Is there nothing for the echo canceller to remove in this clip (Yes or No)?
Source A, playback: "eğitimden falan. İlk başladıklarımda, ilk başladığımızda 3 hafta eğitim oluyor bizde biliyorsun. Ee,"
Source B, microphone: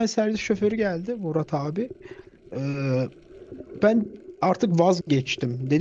Yes